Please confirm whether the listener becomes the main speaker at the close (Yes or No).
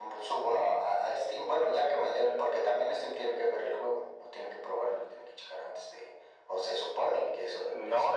Yes